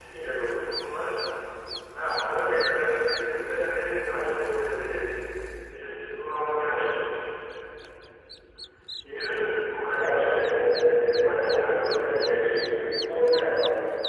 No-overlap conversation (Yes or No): No